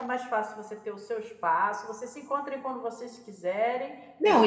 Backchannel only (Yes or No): No